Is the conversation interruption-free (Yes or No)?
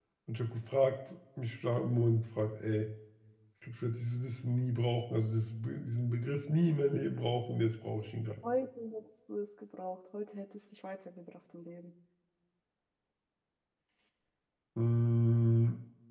Yes